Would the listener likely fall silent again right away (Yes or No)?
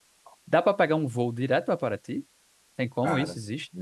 No